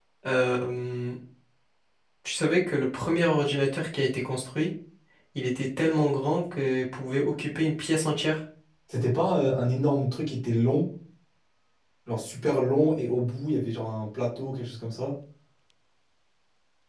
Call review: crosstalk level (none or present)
none